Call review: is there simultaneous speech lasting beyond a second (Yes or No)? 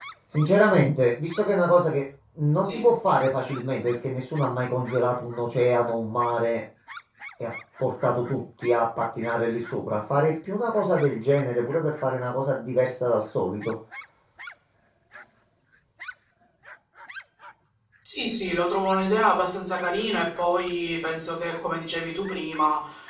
No